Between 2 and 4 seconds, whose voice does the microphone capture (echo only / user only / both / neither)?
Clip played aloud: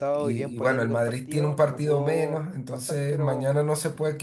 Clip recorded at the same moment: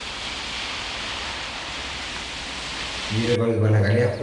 user only